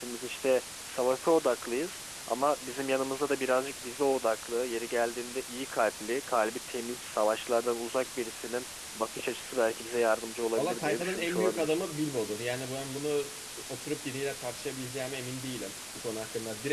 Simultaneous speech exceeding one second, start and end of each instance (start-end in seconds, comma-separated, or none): 10.6-11.8